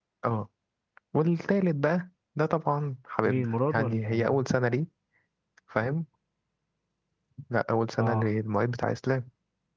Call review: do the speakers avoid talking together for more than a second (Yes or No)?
No